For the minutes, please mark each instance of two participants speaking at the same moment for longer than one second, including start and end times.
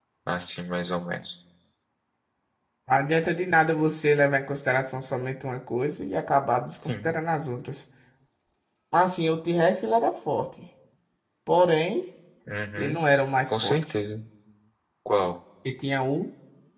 none

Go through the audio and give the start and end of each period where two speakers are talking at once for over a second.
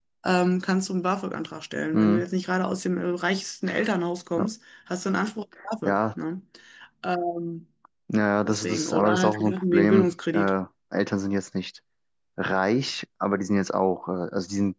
8.4-10.5

